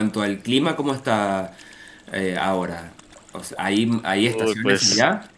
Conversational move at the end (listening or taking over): listening